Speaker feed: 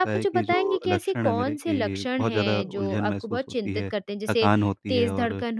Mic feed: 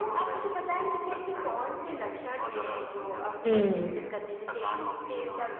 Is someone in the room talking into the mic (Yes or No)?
Yes